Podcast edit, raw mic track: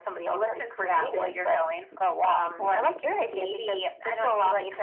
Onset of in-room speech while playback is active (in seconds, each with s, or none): none